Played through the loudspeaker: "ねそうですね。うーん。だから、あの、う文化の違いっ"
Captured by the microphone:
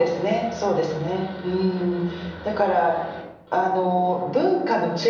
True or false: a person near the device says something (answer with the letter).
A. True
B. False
B